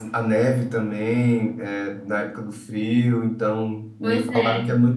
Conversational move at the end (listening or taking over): listening